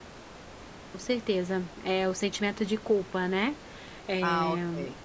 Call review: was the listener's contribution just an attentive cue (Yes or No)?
No